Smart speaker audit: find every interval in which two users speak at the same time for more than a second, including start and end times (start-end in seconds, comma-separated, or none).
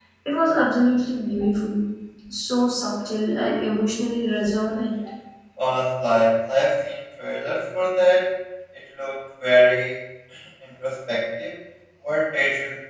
none